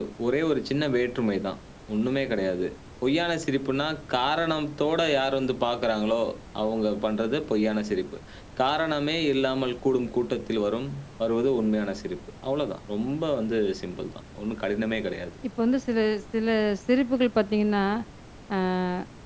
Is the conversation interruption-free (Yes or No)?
Yes